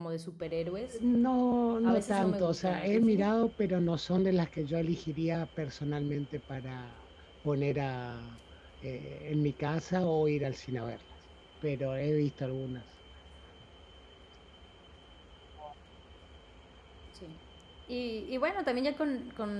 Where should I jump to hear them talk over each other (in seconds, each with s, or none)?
1.8 s